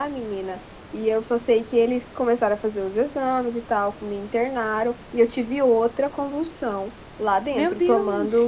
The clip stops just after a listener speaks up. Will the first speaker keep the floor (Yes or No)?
Yes